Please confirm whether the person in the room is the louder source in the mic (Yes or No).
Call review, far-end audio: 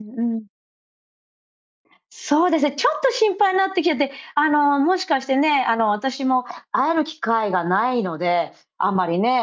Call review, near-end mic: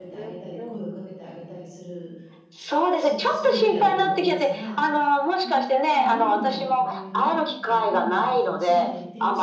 No